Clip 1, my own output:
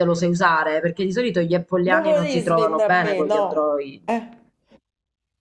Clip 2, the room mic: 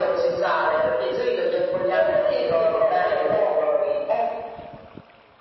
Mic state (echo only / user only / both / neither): echo only